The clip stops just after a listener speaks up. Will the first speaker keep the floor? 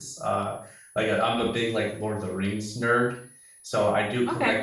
Yes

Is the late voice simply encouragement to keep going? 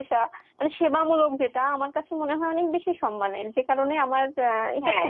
No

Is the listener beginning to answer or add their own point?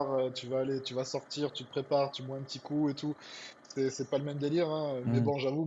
No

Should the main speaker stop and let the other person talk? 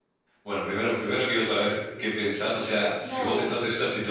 No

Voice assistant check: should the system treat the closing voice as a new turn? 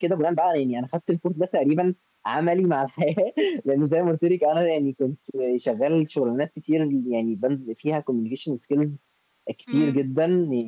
No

